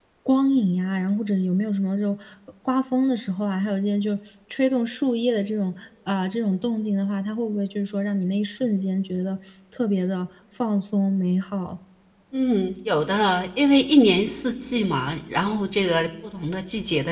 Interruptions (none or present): none